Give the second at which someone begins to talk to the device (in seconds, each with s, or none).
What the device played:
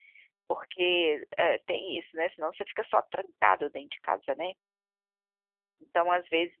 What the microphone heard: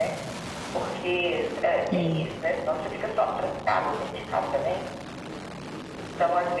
1.9 s